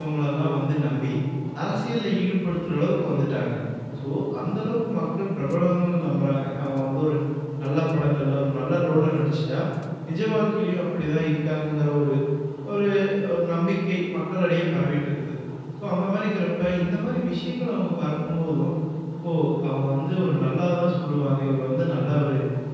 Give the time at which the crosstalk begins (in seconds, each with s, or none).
none